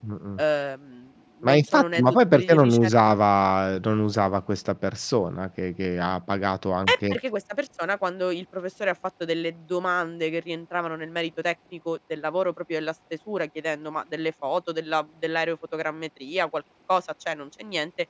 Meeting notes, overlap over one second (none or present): present